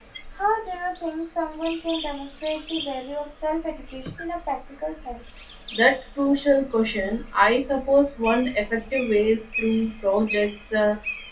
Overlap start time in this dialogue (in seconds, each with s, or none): none